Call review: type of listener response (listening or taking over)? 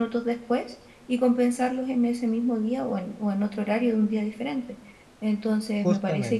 listening